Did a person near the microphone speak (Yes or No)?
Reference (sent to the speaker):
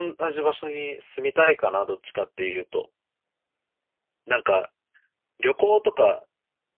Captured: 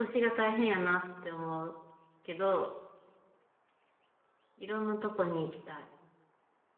Yes